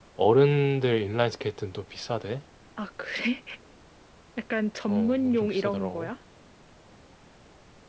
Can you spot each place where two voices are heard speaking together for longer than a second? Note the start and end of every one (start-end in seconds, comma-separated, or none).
4.9-6.1